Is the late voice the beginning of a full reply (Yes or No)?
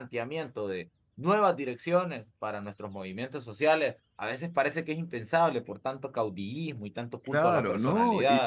Yes